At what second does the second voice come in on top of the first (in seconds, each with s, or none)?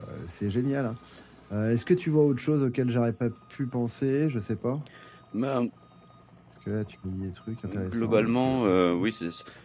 7.7 s